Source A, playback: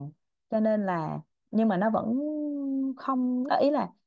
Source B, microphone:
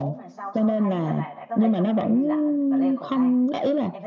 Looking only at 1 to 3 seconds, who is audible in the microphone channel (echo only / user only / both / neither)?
both